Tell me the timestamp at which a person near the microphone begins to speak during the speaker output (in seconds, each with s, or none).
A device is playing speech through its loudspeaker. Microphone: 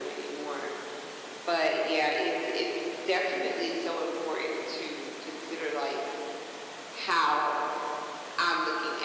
none